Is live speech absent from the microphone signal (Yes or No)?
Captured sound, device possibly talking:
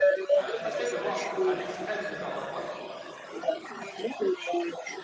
No